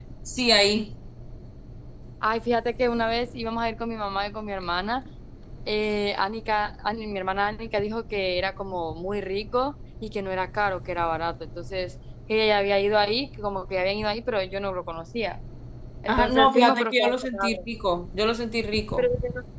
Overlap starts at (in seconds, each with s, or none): 16.1 s